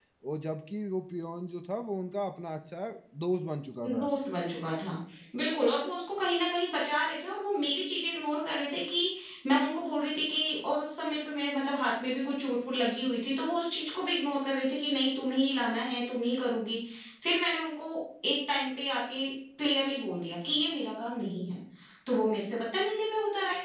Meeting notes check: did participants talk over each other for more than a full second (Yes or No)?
No